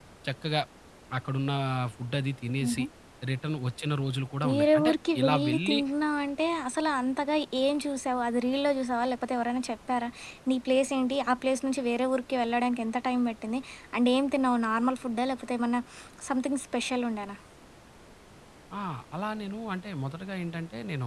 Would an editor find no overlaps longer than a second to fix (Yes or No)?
No